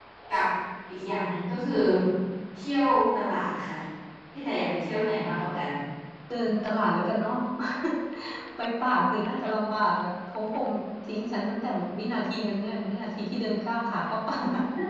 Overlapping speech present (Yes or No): No